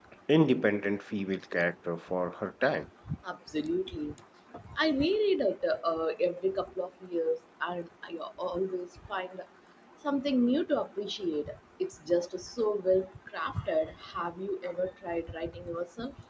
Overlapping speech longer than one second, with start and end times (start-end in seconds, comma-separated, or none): none